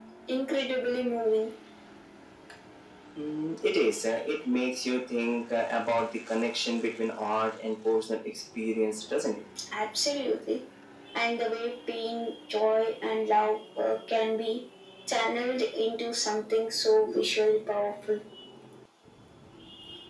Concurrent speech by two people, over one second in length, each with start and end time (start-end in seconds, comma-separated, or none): none